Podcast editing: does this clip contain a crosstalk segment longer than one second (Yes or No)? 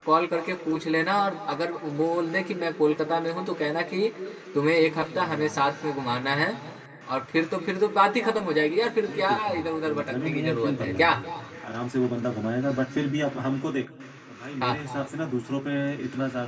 Yes